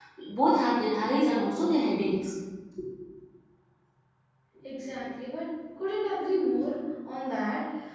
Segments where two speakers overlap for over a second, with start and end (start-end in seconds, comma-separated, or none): none